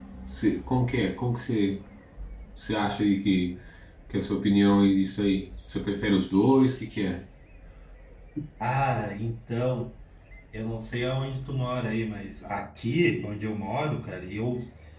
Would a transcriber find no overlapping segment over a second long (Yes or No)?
Yes